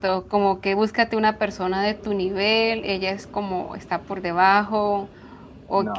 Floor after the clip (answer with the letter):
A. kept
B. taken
A